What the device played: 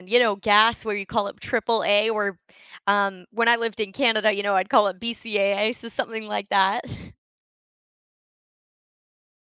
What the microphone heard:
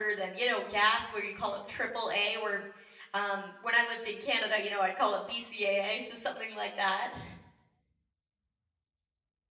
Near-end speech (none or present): none